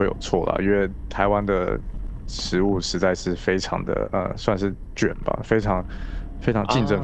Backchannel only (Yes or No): Yes